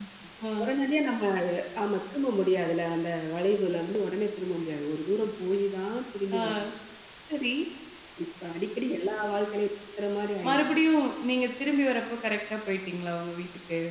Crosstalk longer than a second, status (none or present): none